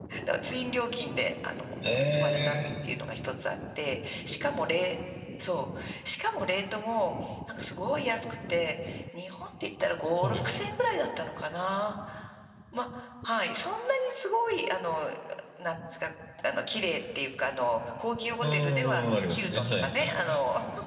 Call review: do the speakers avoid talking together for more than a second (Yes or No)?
No